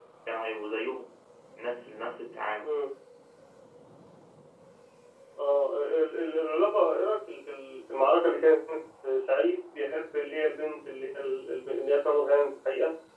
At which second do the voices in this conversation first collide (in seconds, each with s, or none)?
none